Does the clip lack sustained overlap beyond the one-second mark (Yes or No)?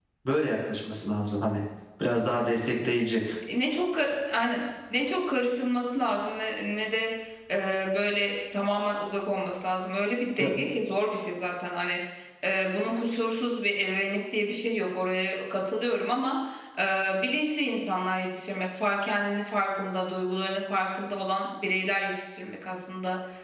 Yes